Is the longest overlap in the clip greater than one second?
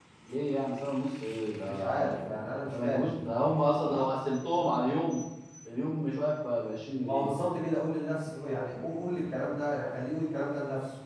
No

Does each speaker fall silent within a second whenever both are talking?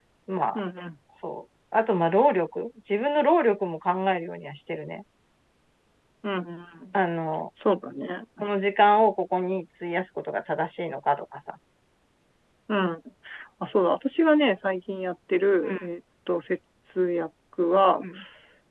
Yes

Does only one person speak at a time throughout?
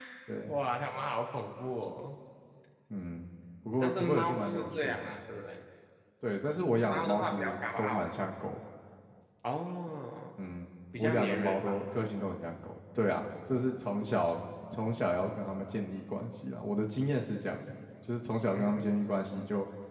No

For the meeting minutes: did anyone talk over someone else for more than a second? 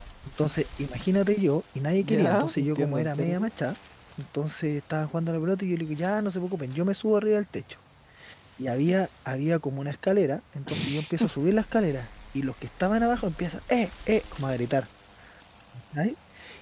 Yes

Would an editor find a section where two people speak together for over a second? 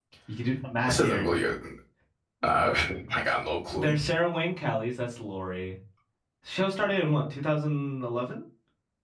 No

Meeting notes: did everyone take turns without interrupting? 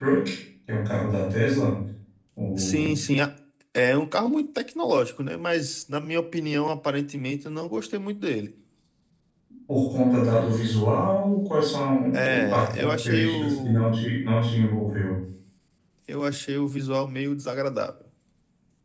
No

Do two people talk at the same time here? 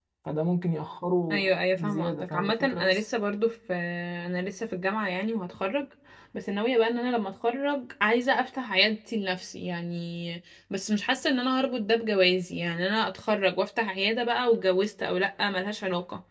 Yes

